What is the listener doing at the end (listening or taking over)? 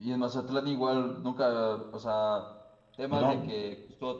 listening